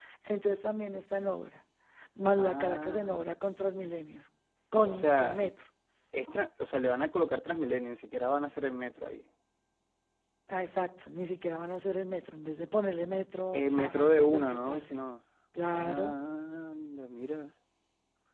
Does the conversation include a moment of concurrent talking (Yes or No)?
Yes